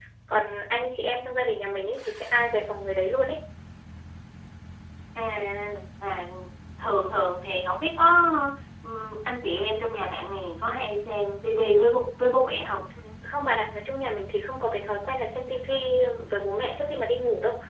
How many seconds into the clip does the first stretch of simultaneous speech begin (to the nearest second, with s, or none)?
none